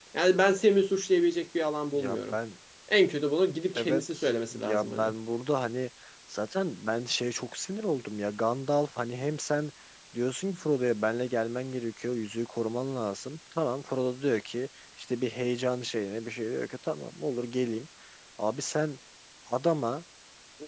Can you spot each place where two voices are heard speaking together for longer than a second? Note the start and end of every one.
3.8-5.1

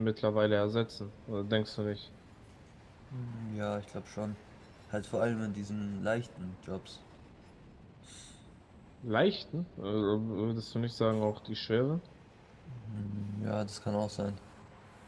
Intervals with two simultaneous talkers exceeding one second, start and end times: none

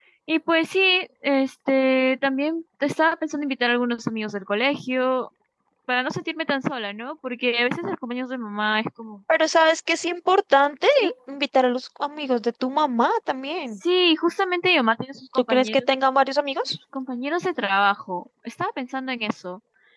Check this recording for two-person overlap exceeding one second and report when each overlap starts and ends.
none

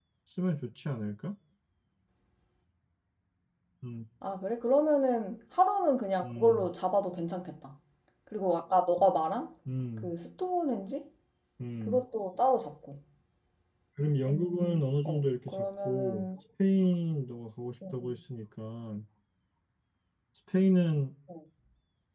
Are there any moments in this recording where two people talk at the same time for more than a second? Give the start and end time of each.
15.1-16.2

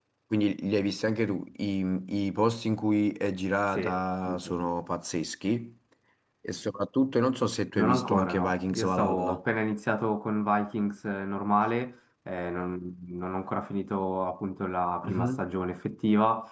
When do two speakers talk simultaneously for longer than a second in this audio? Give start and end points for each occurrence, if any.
7.8-9.4

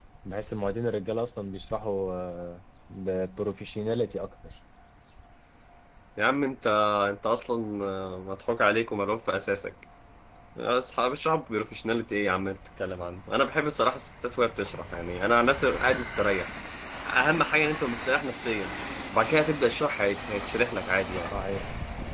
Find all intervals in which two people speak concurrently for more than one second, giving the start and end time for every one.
none

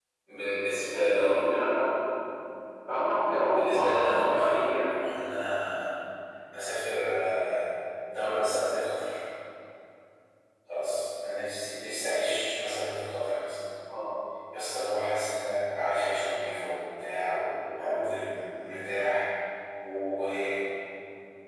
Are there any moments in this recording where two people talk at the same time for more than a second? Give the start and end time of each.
3.5-4.7

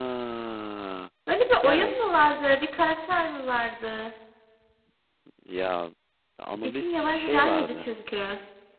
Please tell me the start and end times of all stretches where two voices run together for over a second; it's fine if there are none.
6.6-7.9

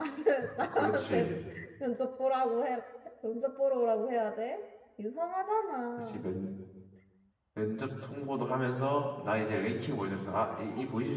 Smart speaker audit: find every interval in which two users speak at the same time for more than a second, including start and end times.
none

